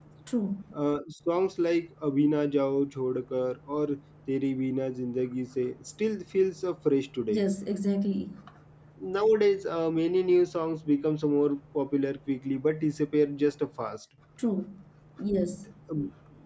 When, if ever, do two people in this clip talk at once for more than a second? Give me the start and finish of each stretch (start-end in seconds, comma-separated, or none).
none